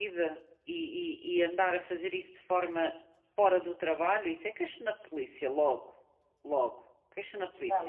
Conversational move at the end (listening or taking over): taking over